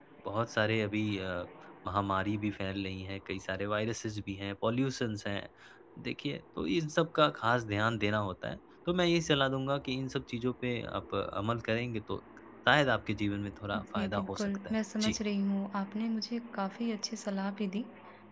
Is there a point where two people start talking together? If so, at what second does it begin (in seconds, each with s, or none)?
13.7 s